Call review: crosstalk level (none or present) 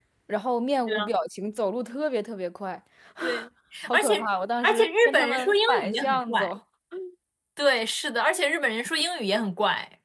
present